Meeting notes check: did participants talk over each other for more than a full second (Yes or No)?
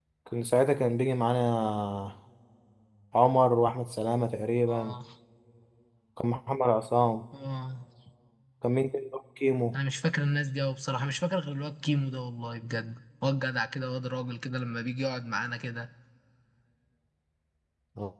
No